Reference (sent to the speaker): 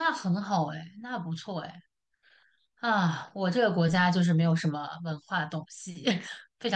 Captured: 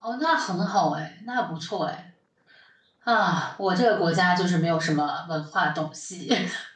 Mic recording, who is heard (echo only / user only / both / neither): echo only